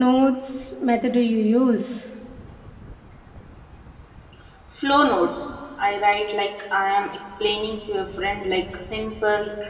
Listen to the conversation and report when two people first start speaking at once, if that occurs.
none

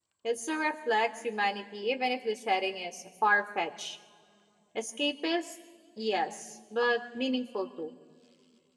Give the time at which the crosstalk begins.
none

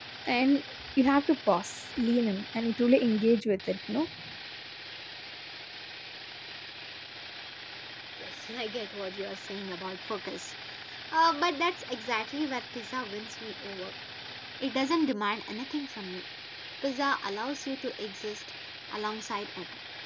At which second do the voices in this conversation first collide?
none

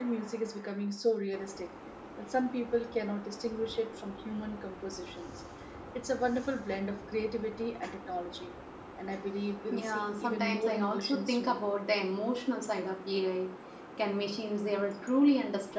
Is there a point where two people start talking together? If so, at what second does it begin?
10 s

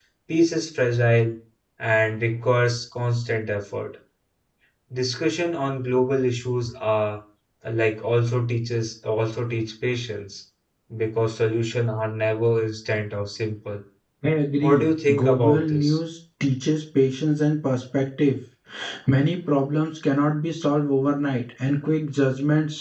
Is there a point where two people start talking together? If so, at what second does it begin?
15 s

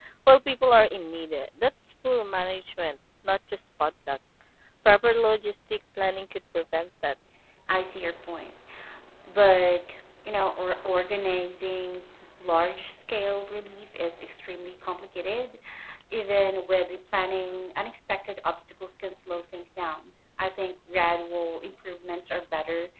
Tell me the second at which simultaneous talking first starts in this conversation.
none

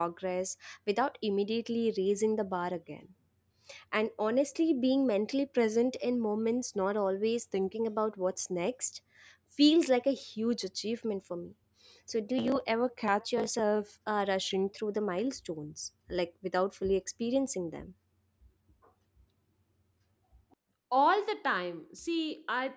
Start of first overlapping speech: none

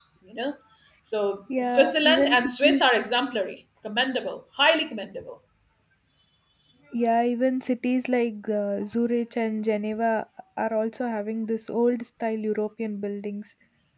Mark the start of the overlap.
2 s

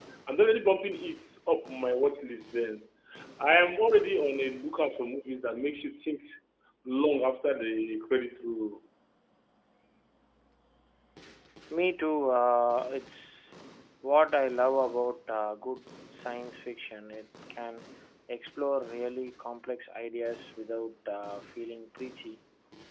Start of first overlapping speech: none

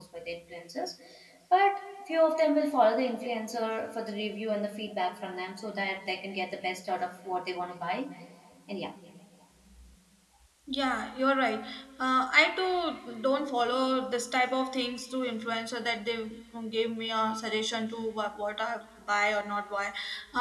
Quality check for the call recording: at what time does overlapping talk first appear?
none

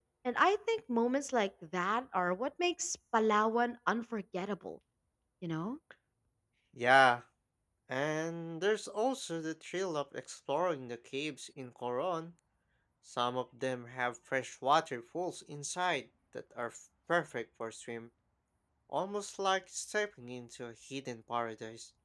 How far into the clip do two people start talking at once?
none

